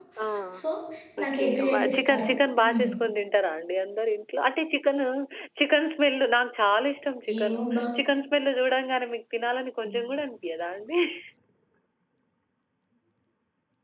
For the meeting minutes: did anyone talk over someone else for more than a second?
Yes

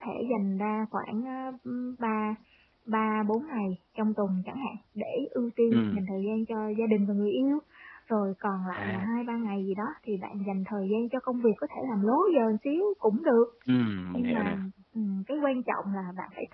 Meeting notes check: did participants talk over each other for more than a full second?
No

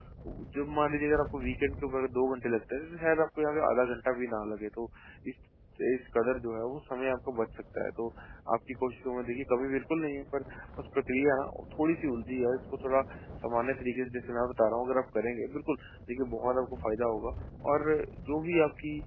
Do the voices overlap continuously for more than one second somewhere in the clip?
No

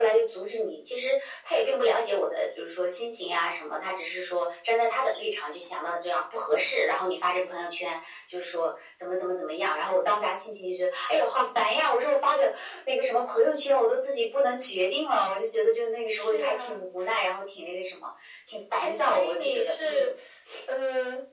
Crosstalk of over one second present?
Yes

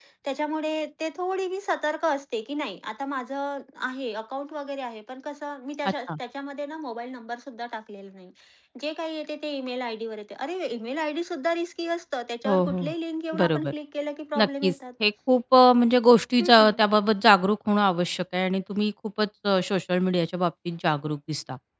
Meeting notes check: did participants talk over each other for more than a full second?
No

